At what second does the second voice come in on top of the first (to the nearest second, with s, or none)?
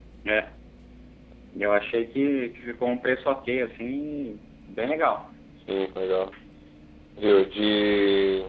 none